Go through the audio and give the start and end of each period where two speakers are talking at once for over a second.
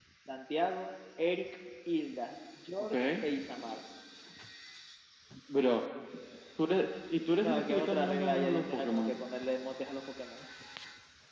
7.4-9.2

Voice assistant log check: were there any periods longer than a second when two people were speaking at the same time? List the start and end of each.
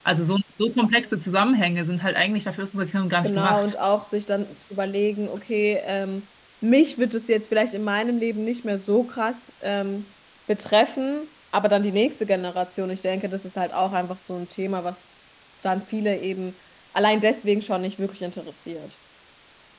none

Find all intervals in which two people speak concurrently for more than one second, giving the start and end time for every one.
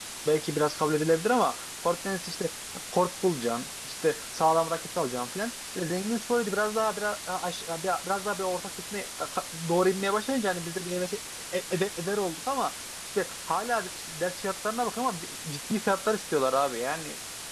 none

